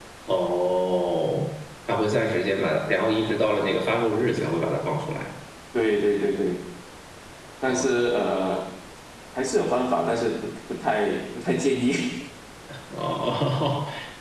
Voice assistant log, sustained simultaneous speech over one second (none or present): none